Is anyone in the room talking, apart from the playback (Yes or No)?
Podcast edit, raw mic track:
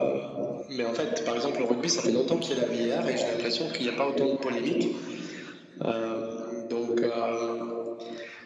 No